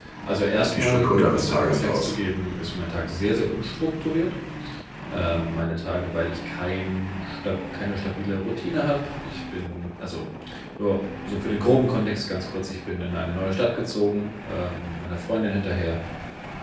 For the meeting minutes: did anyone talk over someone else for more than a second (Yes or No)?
Yes